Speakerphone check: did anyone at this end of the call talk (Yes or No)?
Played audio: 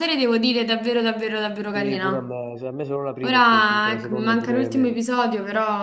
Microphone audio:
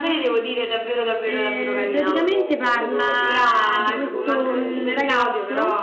Yes